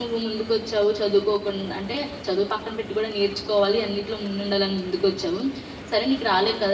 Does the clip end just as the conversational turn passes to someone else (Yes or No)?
No